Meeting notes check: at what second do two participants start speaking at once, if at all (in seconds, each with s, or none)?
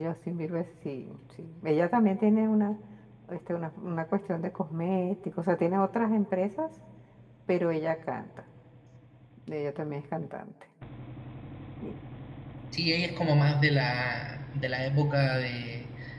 none